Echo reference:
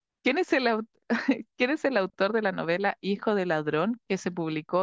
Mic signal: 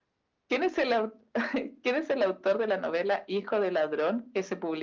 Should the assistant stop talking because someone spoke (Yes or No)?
No